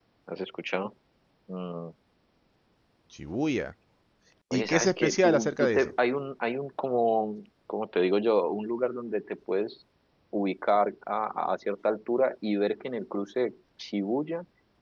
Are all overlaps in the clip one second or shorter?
No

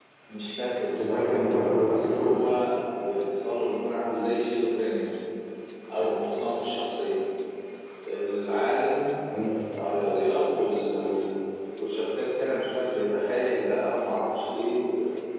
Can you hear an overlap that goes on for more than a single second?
Yes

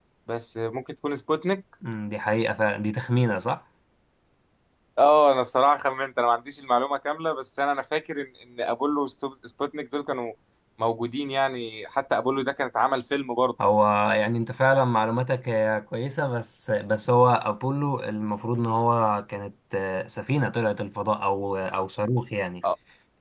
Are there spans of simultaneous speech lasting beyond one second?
No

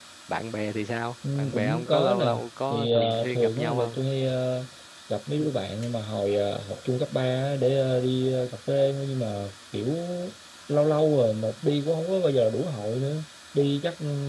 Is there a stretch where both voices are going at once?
Yes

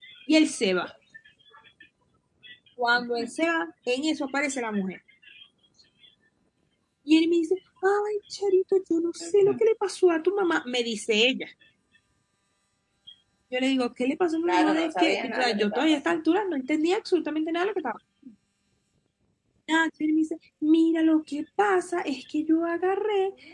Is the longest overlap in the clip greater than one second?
Yes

